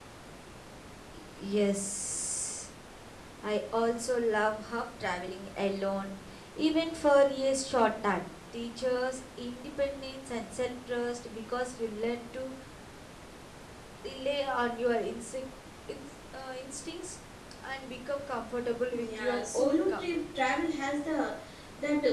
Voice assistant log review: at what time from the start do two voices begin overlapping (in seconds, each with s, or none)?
18.9 s